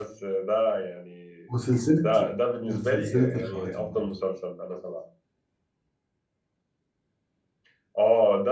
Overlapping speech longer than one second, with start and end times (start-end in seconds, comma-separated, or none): 2.7-4.0